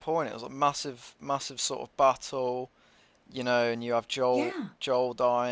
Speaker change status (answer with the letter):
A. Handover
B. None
B